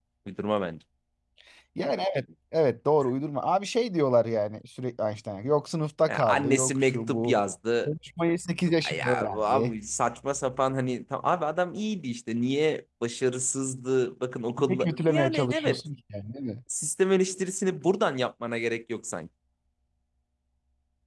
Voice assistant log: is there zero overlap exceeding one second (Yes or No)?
No